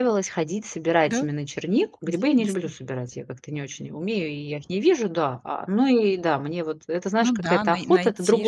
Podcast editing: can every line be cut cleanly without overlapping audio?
No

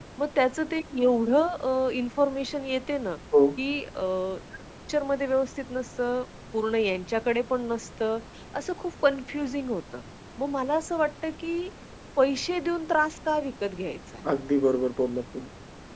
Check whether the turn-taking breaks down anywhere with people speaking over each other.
No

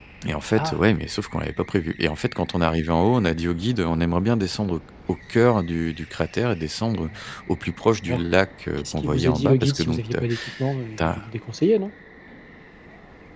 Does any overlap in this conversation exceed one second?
Yes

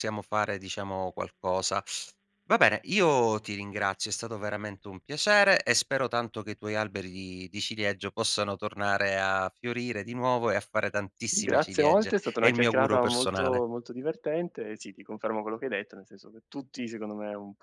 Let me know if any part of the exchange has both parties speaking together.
Yes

